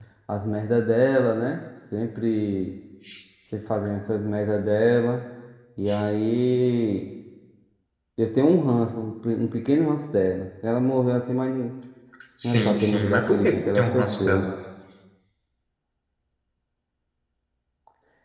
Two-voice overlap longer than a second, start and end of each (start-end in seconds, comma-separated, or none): 12.4-14.5